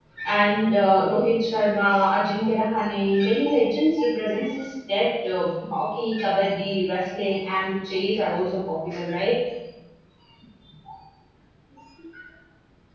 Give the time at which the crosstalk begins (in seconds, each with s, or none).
none